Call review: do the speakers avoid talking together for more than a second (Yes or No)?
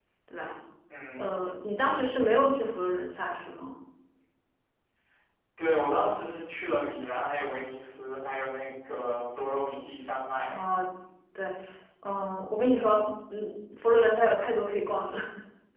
Yes